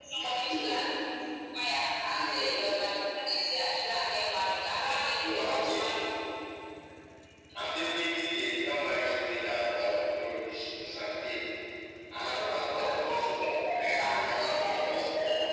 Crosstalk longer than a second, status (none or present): present